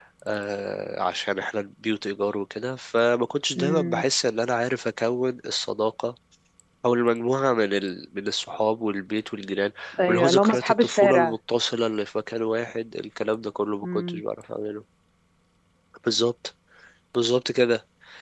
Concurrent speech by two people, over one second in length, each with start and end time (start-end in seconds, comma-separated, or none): 10.1-11.3